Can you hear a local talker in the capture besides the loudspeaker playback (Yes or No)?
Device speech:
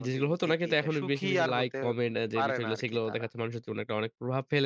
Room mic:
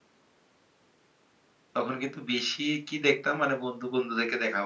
Yes